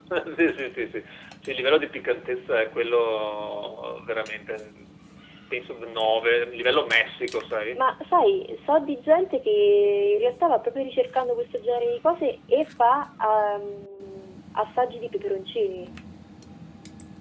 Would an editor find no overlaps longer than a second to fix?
Yes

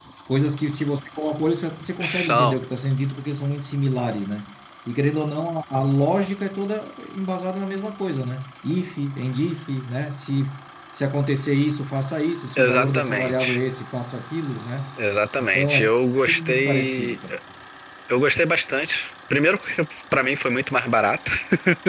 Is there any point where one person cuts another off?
Yes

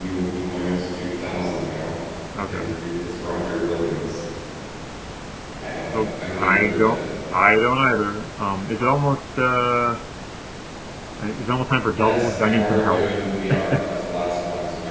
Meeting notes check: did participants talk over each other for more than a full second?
Yes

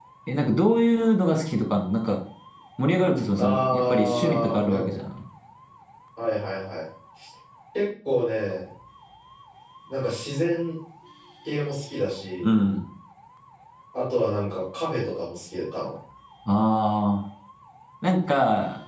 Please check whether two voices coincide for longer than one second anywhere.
Yes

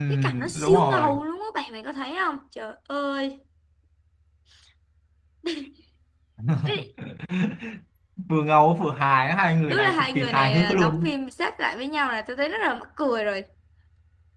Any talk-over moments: Yes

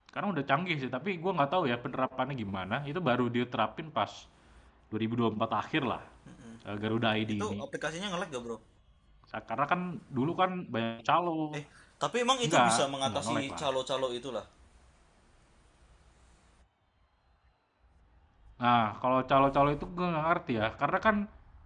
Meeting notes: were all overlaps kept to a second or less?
No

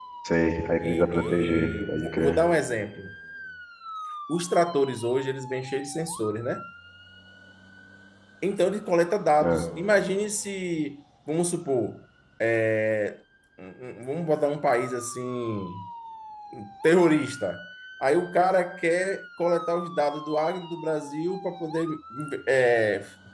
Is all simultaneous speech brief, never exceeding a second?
No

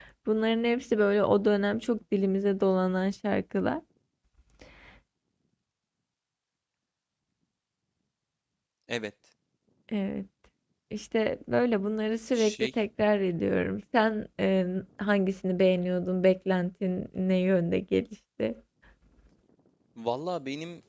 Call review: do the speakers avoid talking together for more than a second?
Yes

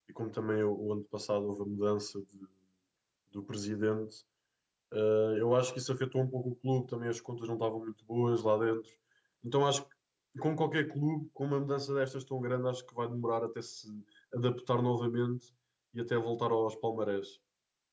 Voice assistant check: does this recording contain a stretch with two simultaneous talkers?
No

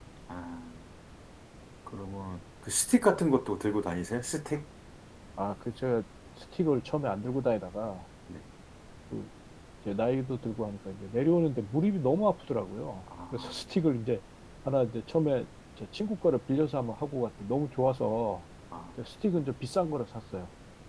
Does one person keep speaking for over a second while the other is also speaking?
No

